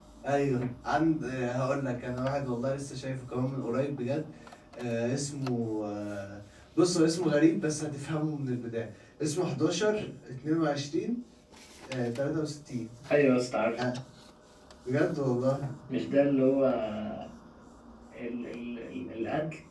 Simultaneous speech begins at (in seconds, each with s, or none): none